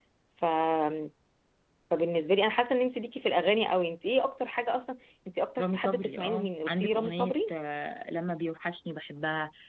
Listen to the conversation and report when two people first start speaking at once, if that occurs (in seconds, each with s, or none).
5.6 s